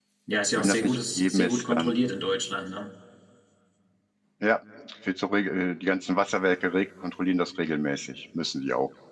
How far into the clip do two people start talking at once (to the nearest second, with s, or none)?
1 s